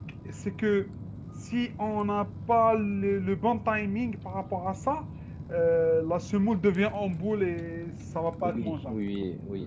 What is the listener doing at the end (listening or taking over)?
taking over